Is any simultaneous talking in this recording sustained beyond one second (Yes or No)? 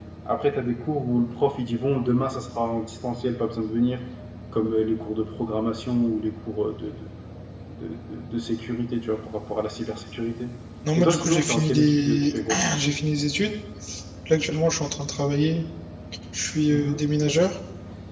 Yes